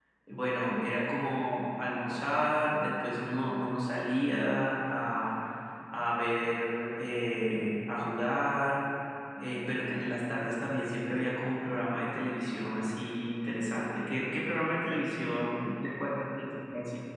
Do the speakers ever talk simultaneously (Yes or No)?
No